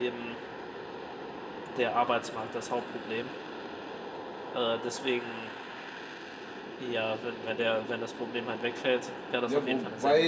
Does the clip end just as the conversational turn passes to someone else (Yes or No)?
Yes